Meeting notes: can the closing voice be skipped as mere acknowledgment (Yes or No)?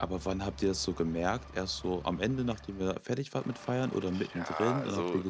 No